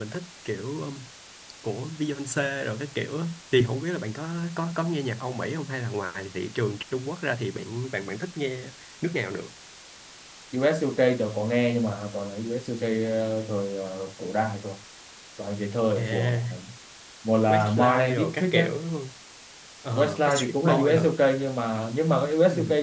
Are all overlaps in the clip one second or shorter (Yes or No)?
No